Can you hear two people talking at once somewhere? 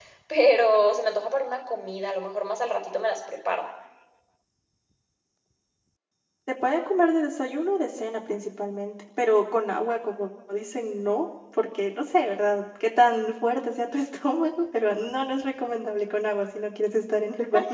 No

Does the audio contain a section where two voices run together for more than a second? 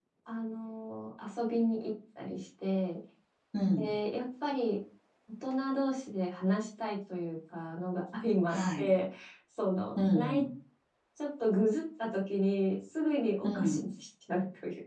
No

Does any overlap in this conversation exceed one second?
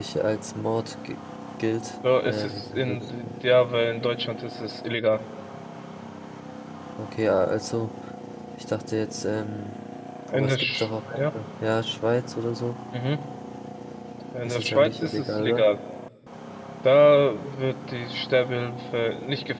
Yes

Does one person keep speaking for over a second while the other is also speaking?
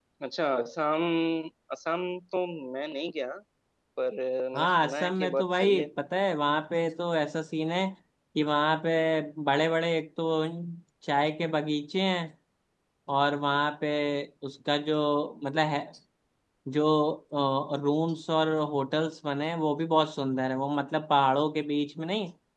Yes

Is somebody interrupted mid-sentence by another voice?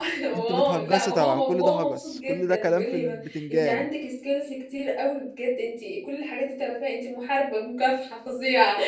Yes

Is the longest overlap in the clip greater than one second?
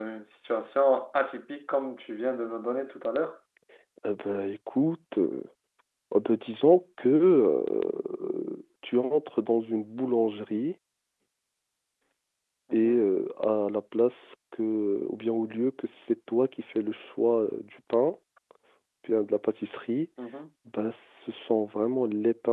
No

